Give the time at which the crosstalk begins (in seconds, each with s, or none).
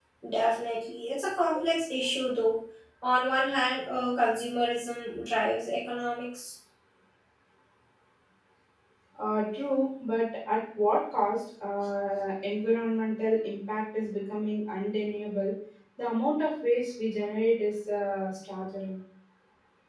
none